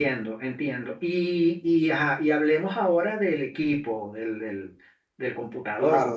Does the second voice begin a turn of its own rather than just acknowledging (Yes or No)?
Yes